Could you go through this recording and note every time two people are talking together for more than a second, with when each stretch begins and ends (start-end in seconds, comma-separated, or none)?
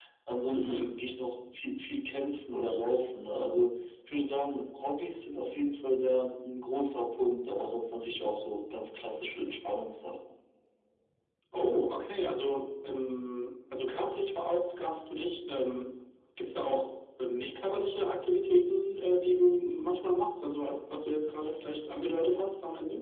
none